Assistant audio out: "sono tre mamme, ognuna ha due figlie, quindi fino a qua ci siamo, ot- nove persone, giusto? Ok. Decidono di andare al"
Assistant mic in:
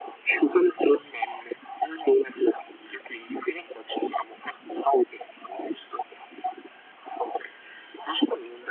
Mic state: echo only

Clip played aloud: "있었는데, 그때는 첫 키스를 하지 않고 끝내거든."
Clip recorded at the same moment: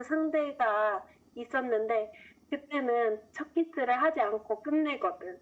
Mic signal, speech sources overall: echo only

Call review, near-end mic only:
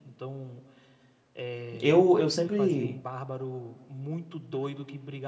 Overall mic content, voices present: both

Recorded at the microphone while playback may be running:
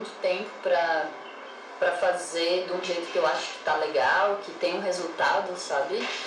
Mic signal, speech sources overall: echo only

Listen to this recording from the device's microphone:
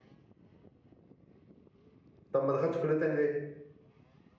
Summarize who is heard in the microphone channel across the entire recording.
user only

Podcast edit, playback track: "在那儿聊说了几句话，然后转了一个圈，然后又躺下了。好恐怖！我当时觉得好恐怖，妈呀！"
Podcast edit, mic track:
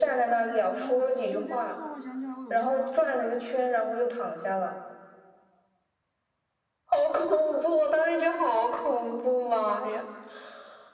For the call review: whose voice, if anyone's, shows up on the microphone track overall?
both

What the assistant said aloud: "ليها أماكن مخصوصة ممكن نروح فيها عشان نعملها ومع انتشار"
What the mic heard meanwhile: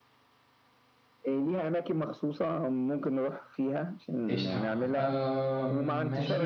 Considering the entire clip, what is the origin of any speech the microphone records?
both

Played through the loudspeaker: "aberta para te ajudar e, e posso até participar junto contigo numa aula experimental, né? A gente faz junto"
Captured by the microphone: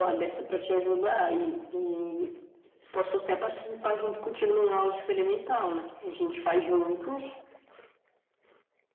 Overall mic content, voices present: echo only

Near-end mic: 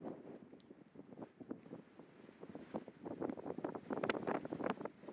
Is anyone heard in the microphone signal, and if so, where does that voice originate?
neither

